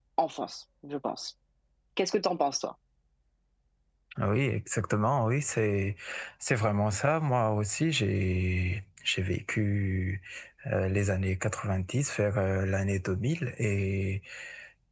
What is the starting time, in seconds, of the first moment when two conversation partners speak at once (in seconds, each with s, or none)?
none